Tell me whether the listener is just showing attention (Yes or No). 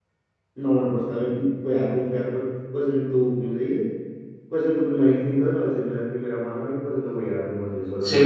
No